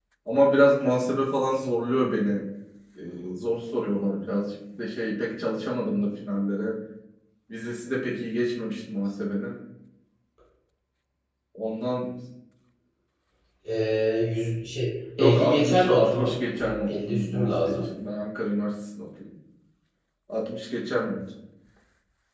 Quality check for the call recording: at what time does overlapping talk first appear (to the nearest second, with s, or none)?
15 s